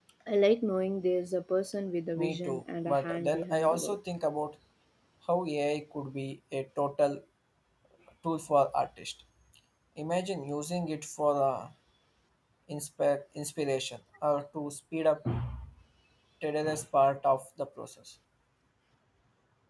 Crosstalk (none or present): present